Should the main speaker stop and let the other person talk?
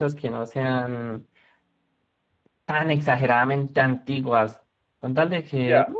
No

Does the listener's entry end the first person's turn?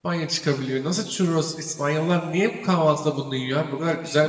Yes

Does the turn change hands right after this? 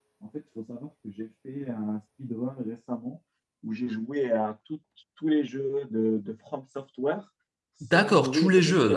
Yes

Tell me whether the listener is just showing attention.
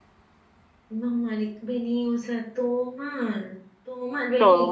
Yes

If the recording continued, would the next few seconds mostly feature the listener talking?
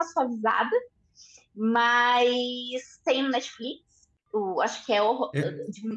No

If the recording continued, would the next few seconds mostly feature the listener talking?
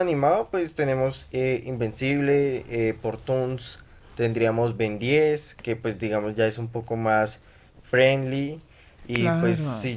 No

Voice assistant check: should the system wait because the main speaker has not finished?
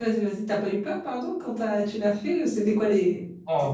No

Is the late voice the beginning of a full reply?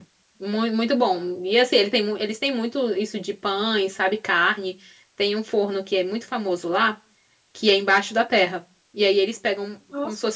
No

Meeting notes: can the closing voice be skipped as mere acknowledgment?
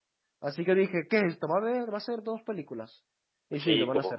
No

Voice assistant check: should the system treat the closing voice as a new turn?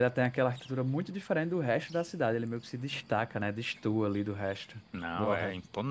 Yes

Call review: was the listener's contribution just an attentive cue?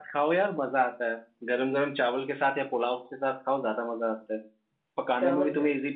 Yes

